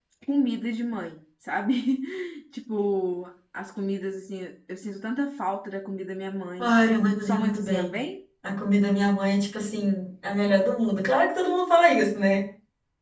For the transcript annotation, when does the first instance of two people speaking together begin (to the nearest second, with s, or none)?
7 s